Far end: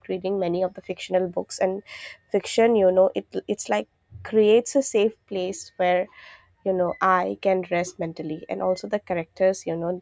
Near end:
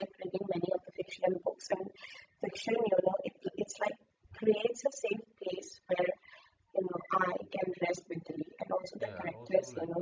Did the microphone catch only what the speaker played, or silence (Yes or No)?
No